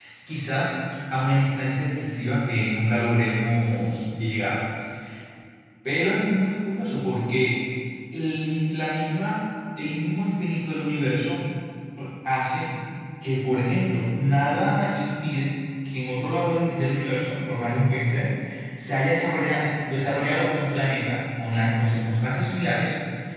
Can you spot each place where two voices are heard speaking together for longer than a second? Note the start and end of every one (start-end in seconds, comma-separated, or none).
none